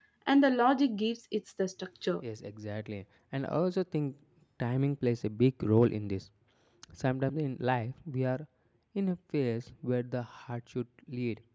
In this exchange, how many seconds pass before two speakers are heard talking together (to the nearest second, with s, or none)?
none